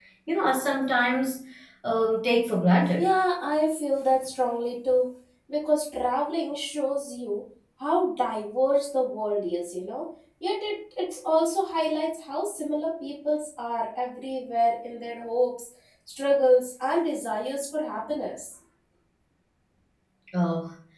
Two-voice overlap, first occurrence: none

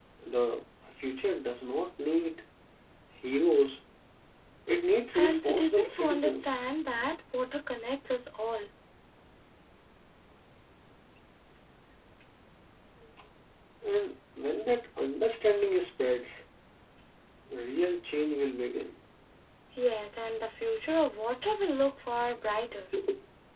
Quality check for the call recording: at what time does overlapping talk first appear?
5.1 s

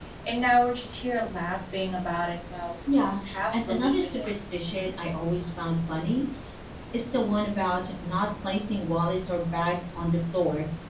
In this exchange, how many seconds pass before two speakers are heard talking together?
2.9 s

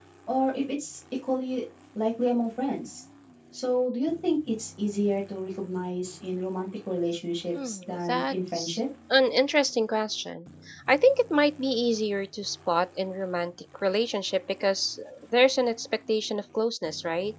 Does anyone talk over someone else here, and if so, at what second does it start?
7.5 s

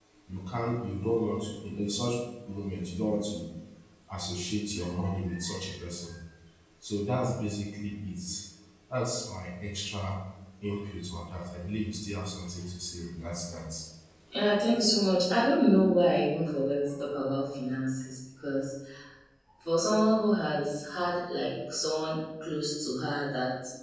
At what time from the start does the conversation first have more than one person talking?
none

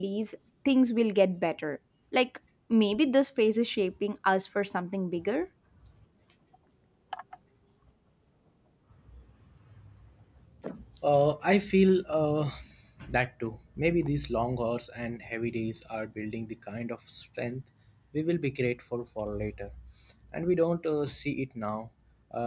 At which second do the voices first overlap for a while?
none

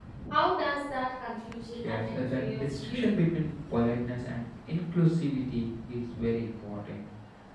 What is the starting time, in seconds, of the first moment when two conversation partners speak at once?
1.7 s

